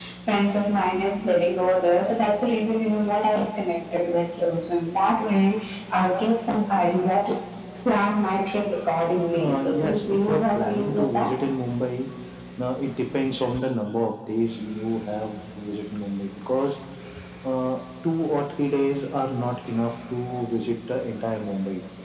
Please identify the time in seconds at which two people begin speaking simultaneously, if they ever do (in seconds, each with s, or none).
9.4 s